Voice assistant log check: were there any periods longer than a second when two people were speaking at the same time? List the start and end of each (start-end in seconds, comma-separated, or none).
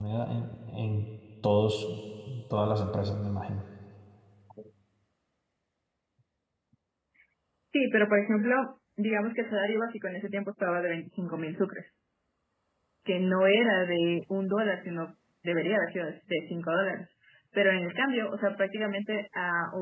none